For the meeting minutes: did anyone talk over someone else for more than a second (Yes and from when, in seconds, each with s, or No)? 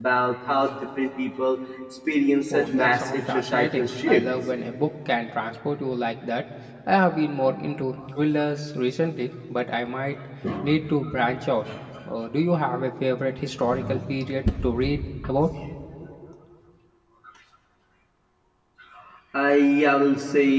Yes, from 2.5 s